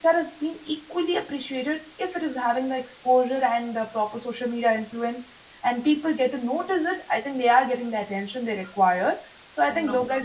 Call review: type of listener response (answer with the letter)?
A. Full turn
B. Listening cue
B